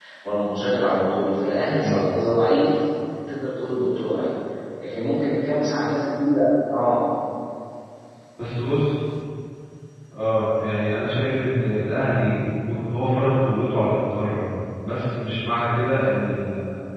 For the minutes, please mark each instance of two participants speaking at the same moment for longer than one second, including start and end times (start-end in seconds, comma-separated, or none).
none